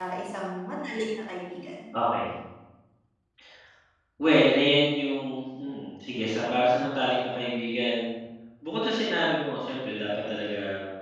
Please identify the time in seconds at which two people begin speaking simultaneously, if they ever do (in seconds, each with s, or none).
none